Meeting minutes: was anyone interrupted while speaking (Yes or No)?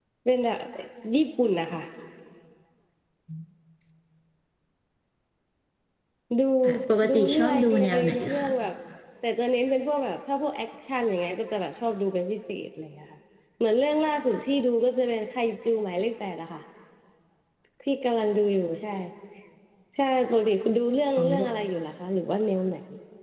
Yes